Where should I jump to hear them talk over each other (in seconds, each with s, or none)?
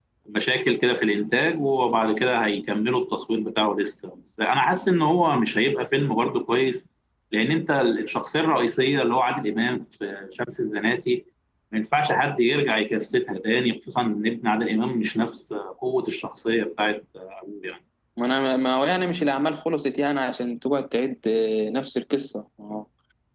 none